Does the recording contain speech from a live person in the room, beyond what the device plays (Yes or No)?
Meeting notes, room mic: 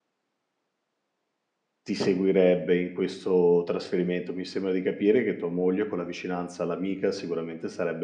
Yes